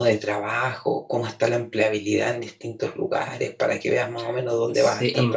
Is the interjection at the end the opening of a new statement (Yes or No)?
Yes